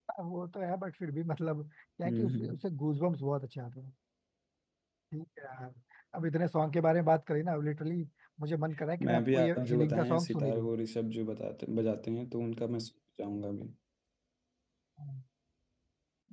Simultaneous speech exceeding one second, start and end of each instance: 9.0-10.7

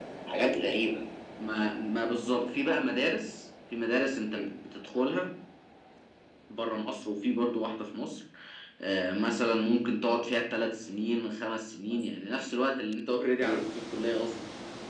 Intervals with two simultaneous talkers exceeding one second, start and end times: none

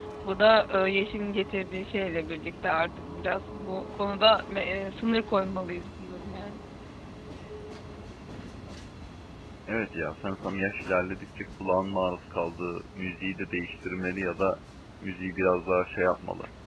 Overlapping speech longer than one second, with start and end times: none

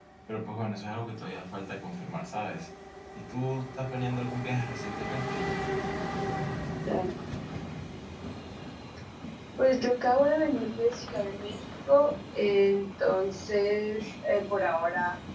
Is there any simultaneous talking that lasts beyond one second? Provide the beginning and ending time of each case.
none

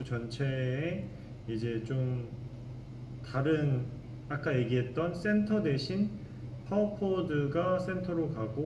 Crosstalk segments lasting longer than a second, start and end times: none

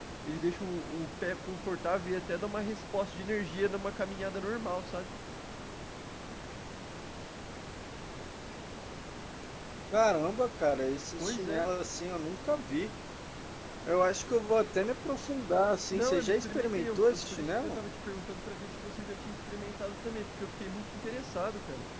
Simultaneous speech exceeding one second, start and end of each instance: 15.9-17.8

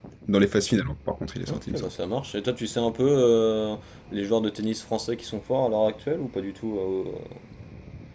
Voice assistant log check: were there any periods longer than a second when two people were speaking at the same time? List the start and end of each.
none

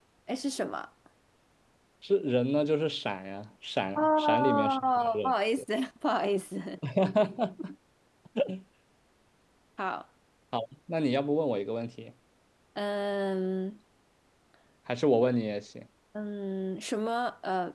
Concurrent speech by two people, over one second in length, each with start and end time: 4.0-5.3

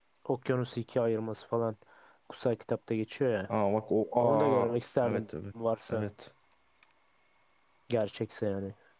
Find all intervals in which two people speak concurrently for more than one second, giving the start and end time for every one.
none

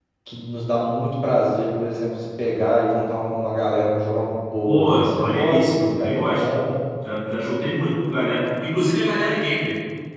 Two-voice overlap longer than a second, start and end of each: 4.7-6.5

